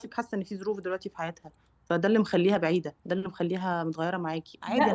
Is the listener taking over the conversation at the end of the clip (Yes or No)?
Yes